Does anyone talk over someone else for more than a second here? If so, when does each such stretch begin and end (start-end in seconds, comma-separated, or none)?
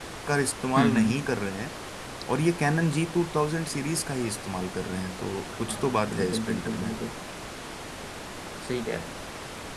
5.7-6.9